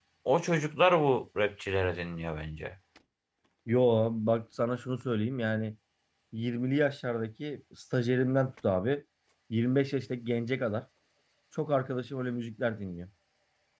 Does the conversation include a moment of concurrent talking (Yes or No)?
No